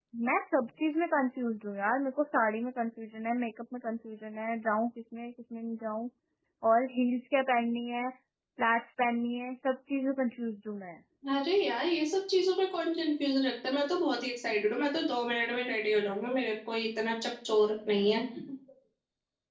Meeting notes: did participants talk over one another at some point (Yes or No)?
No